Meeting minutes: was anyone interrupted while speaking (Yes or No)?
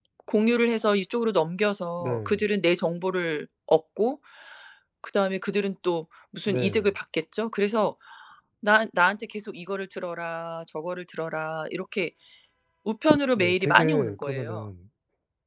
Yes